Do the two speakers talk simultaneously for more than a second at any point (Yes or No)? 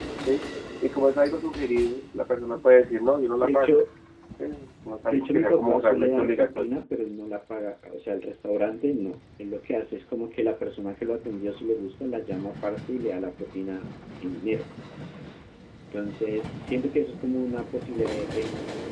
Yes